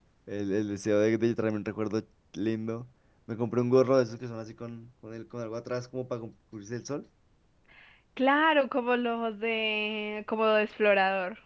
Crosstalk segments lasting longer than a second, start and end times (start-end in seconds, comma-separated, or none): none